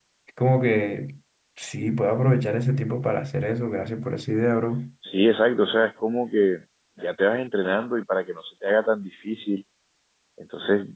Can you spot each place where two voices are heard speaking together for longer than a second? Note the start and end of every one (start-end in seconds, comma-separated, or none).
none